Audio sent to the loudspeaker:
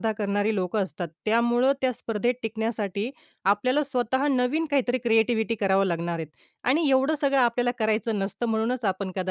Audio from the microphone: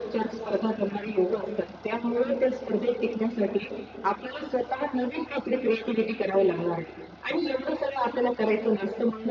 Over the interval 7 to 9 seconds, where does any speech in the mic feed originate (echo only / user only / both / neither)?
echo only